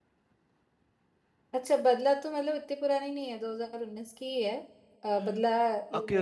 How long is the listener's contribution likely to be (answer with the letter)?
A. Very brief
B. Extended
B